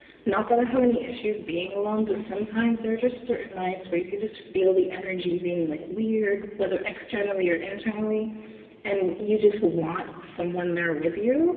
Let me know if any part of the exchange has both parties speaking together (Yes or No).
No